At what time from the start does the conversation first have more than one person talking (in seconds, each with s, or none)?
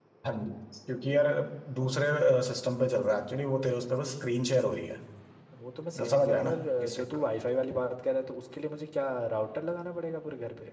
6.0 s